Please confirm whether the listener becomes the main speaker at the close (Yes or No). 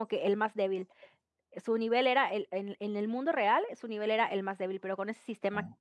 No